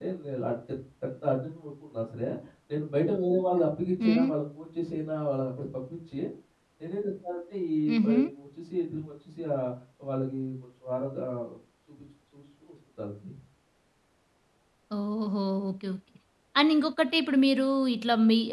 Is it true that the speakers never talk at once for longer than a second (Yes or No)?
Yes